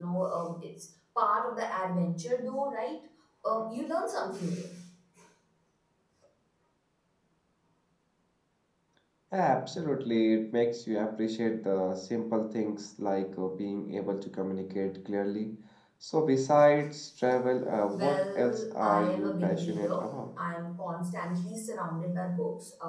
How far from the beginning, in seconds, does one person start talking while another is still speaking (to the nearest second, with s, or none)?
18 s